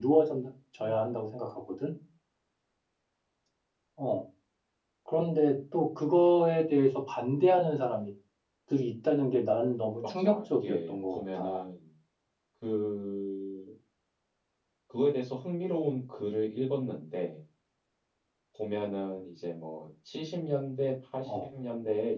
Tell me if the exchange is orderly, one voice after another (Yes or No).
No